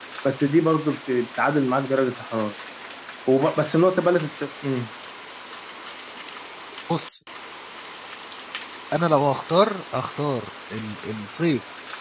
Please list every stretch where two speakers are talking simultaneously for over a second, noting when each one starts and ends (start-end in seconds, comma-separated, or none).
none